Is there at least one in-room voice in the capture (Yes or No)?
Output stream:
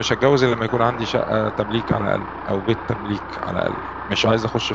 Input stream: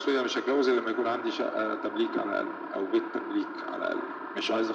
No